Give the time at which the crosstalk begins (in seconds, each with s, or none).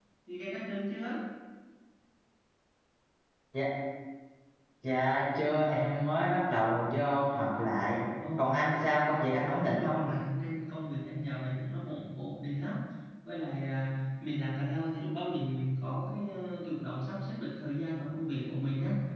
8.4 s